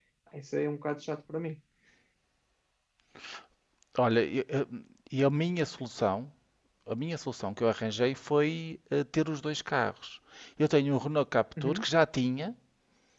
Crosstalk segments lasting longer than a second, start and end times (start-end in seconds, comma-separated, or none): none